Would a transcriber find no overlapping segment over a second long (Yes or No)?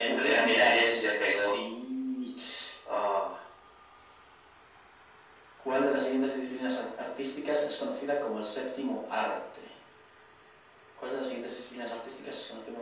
No